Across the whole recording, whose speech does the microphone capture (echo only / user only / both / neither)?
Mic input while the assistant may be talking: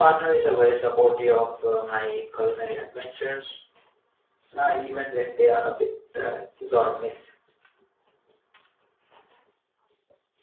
user only